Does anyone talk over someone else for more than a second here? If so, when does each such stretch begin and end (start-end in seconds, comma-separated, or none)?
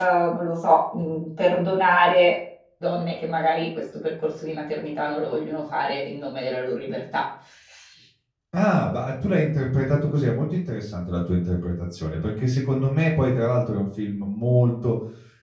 none